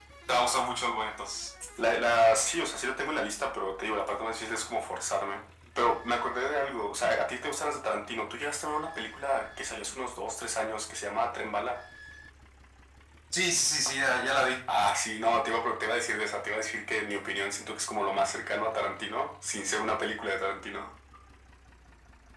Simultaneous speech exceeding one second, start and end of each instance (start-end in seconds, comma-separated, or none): none